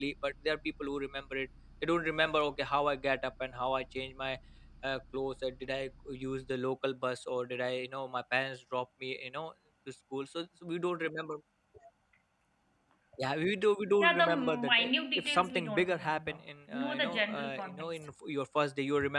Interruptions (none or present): present